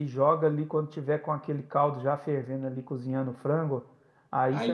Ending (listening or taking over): listening